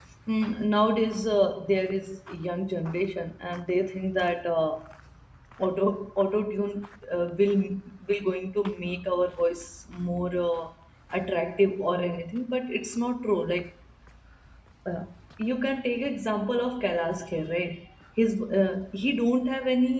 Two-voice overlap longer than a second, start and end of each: none

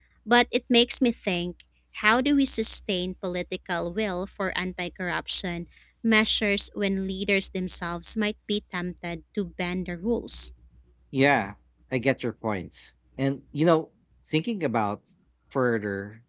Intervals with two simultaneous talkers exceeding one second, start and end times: none

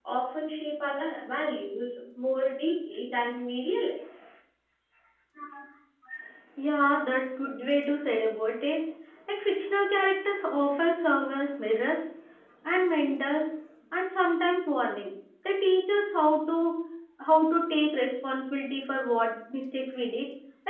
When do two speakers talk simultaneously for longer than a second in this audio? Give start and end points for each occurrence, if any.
none

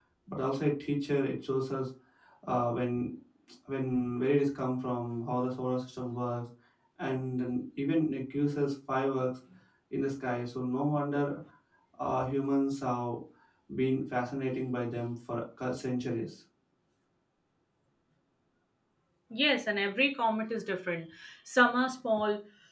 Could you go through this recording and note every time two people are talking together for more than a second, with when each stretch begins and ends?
none

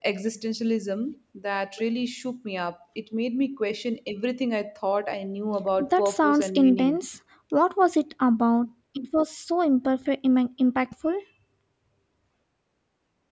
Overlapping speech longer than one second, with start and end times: 5.8-7.0

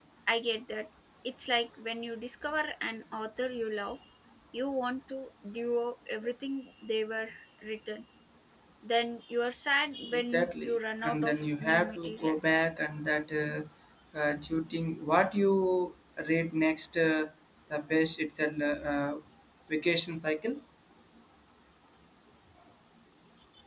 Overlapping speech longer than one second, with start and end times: 10.1-12.4

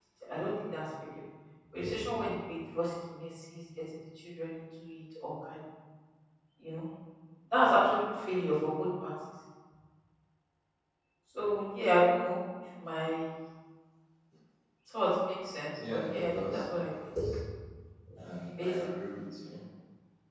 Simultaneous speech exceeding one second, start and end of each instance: 15.9-17.1

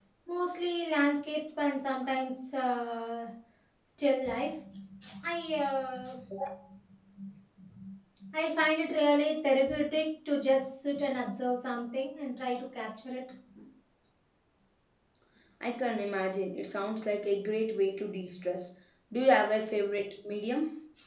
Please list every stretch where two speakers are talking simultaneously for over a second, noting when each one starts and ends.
none

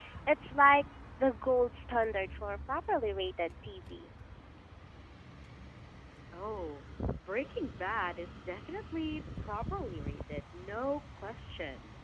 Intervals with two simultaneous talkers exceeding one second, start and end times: none

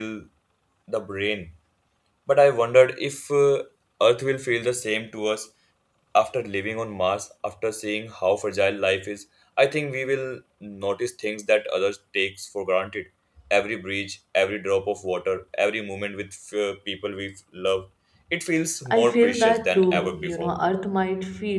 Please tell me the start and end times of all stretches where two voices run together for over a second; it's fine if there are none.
18.9-20.5

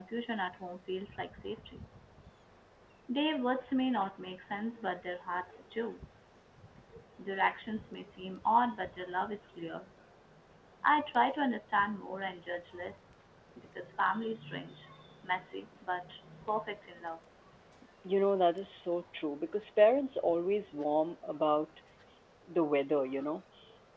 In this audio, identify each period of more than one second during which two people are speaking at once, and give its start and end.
none

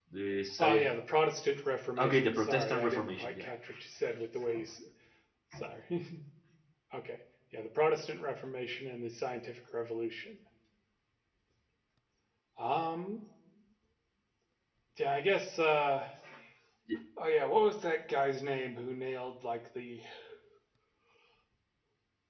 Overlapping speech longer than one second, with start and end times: 2.0-3.5

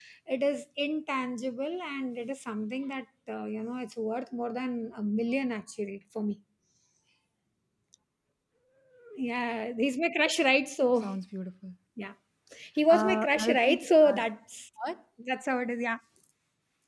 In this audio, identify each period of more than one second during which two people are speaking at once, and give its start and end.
12.9-14.2

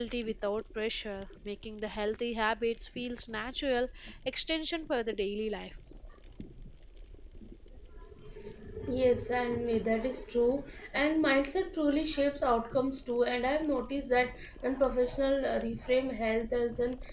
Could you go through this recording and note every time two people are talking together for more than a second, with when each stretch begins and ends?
none

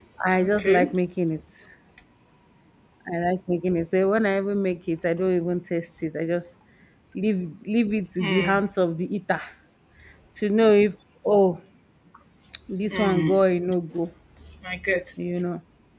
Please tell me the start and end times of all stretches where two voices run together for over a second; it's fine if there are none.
none

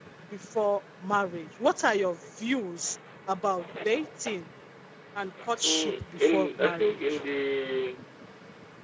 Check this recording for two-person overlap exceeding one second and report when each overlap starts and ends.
5.6-7.2

